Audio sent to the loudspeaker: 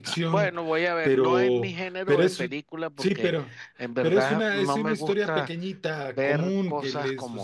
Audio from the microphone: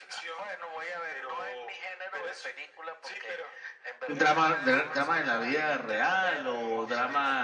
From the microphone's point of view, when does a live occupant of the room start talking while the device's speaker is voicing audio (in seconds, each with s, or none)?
4.1 s